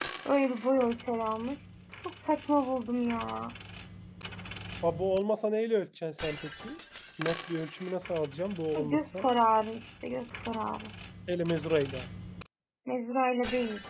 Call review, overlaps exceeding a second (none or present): none